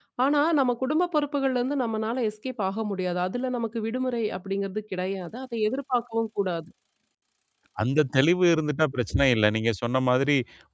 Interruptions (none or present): none